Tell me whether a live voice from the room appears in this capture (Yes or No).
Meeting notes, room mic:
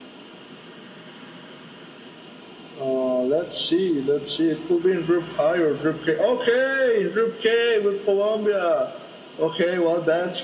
No